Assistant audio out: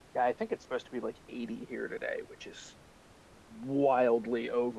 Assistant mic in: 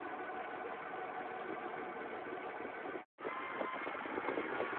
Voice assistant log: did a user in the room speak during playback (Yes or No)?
No